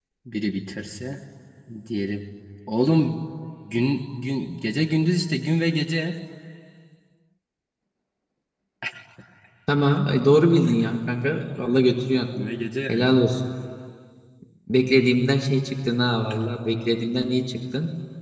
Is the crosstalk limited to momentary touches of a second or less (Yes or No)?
Yes